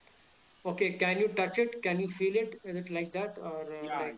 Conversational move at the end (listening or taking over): taking over